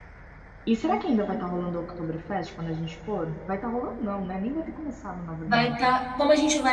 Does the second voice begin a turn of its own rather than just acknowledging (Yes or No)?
Yes